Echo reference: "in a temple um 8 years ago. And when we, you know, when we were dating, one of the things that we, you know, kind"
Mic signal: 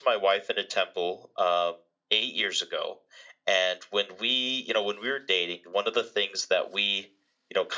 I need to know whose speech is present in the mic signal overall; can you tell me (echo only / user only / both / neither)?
echo only